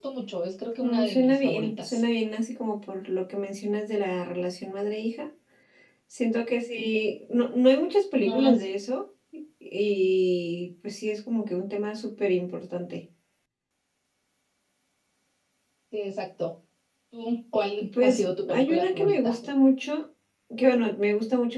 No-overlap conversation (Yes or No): No